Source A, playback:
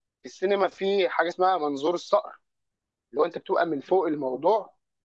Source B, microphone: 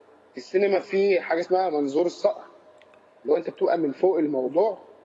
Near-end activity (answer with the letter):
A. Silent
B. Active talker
A